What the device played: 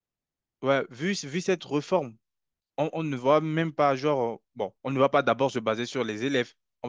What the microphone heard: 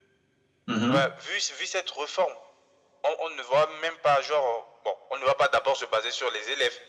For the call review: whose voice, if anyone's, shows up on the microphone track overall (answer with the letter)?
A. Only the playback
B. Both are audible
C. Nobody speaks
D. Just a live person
B